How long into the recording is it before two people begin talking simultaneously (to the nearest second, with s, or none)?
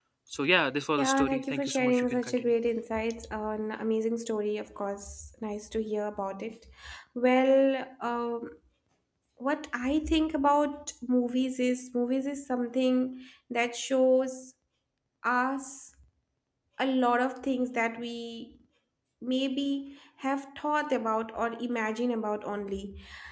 1 s